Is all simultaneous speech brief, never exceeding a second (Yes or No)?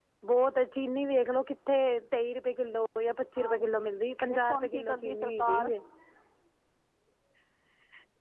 No